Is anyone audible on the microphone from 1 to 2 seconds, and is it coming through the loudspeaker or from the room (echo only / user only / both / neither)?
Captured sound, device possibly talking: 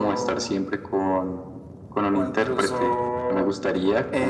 echo only